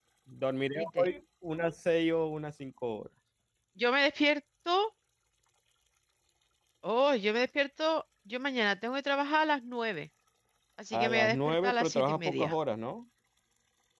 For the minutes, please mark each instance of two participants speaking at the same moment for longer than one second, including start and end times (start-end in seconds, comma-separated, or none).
10.9-12.5